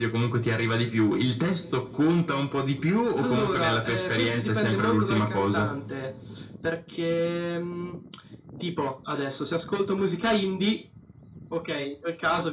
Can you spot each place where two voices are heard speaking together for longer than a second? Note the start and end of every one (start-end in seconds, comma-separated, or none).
3.2-5.7